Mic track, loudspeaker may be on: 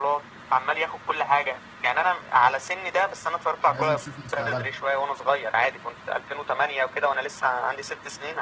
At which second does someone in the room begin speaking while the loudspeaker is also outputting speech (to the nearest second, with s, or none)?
4 s